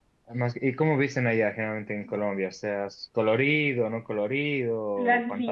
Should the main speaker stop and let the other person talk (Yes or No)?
Yes